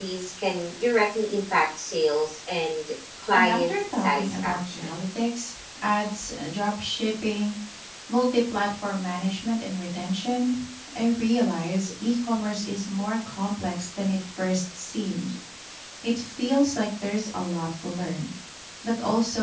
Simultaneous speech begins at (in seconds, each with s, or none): 3.3 s